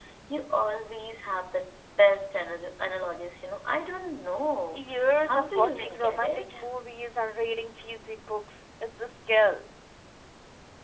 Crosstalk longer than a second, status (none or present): present